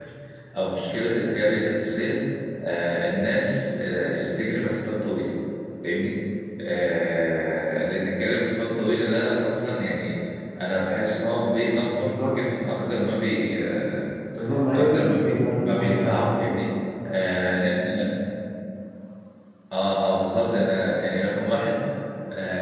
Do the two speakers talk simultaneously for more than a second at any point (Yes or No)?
Yes